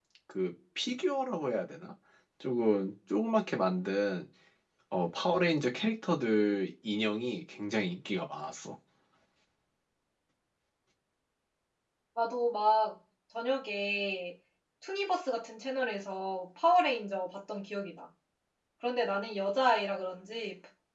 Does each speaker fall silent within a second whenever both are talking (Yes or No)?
Yes